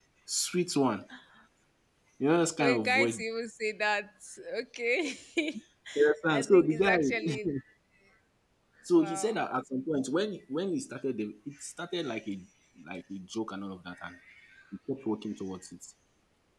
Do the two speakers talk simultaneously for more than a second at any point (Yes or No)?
Yes